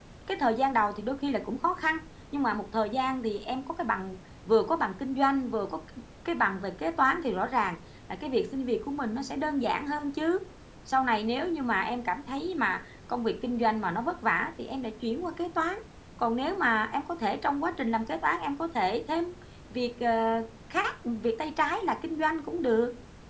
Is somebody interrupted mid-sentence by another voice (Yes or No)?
No